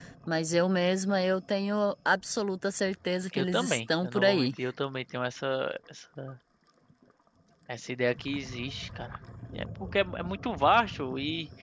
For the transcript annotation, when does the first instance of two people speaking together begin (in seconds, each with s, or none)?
3.3 s